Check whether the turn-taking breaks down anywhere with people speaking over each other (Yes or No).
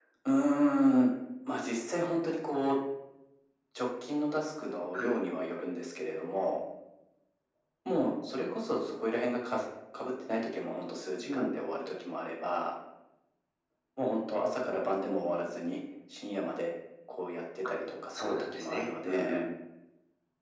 Yes